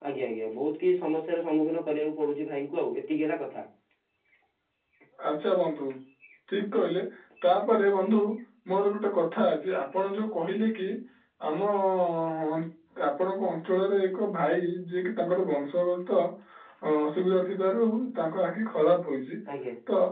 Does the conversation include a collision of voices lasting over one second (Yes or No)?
No